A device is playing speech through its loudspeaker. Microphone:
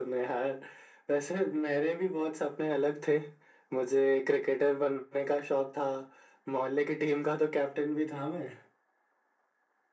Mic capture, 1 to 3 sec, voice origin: echo only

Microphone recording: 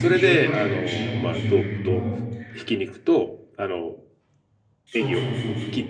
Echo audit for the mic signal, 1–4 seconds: both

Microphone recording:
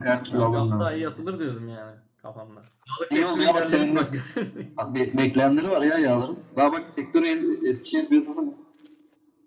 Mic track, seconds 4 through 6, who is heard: both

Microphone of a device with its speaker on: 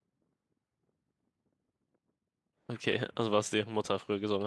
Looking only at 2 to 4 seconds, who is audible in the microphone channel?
user only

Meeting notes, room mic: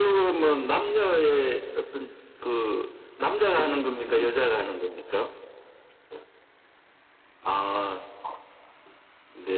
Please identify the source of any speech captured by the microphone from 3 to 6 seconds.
both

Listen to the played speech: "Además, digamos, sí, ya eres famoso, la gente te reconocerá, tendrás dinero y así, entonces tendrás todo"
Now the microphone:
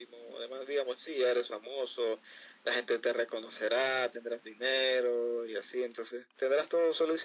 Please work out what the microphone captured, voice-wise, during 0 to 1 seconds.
echo only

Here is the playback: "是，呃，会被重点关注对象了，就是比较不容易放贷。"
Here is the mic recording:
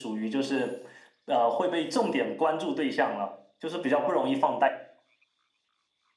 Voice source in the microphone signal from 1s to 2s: echo only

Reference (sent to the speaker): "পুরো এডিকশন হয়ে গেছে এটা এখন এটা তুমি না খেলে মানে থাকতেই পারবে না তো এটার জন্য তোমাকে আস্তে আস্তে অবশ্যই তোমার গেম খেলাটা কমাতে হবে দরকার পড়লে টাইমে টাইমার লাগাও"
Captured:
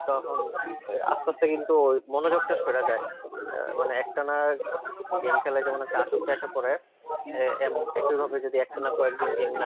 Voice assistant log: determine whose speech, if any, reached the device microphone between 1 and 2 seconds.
both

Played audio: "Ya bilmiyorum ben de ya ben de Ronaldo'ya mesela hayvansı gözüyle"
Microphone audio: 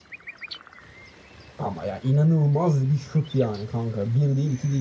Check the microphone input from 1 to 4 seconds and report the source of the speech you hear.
user only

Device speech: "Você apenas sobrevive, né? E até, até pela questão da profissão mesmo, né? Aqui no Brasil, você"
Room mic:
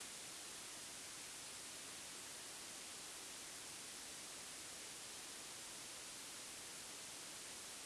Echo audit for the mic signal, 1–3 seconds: neither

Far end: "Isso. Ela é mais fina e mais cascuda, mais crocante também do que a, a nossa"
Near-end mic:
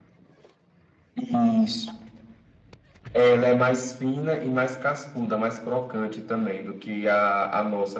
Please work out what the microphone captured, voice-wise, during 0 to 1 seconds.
neither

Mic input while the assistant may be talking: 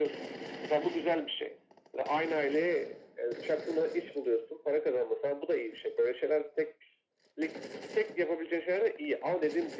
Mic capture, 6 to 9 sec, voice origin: echo only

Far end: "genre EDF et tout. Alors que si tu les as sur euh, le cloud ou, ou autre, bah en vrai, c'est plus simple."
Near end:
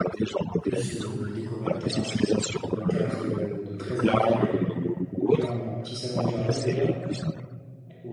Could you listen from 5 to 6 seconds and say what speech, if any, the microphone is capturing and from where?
both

